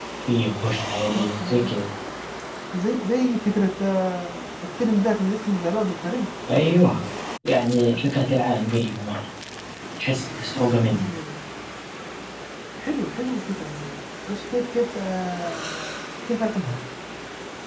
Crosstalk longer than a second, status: none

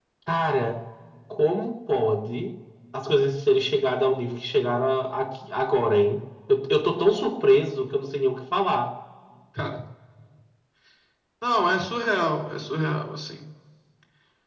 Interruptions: none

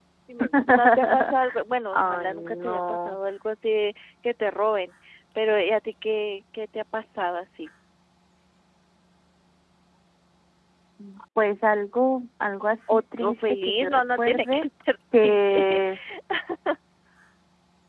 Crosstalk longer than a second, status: present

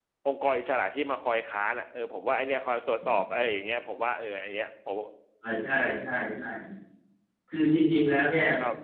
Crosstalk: none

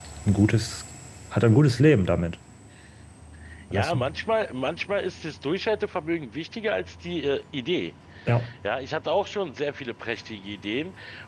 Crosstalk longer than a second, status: none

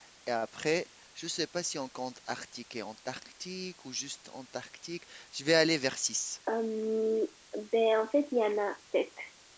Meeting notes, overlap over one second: none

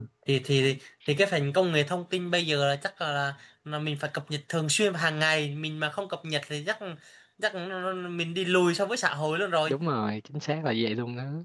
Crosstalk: none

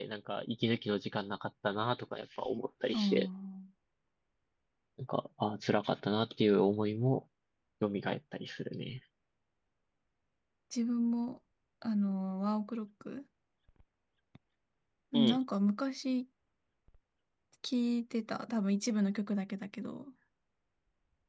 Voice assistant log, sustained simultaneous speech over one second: none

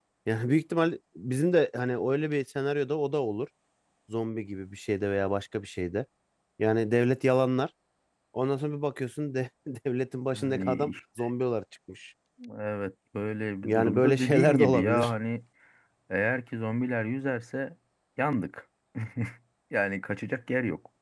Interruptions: present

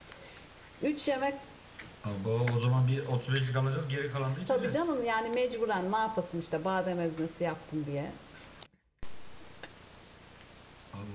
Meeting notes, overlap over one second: none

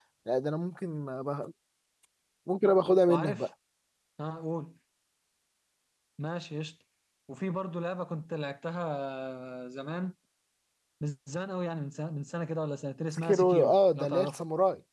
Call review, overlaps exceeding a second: present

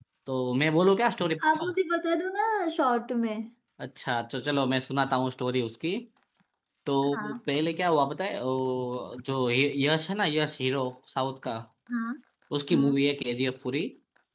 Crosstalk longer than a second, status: none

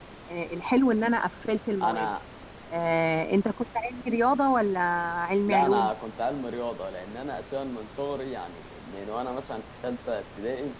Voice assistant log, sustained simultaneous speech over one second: none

